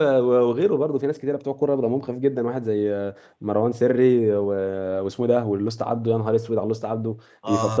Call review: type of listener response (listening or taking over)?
taking over